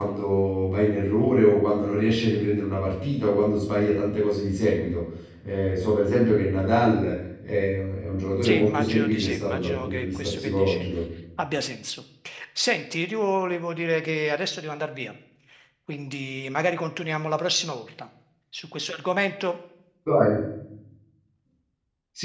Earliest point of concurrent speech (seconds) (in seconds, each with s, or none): 8.4 s